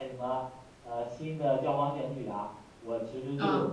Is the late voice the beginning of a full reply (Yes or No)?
No